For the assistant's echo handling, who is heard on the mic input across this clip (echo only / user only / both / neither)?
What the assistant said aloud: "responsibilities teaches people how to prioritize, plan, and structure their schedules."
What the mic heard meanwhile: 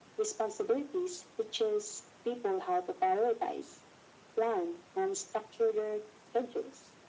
echo only